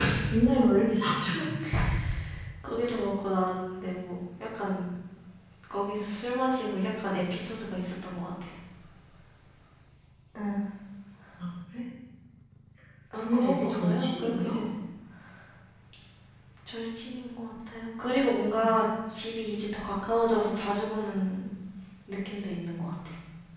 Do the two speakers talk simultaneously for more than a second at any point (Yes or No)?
Yes